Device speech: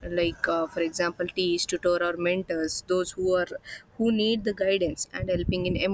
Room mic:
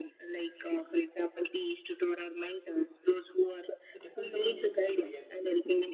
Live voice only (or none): It depends upon usage, I guess.